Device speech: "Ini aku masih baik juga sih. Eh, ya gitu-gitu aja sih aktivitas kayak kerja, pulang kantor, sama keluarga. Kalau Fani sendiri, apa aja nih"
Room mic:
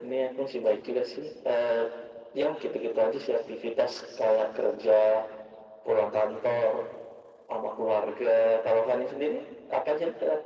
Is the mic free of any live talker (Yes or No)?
Yes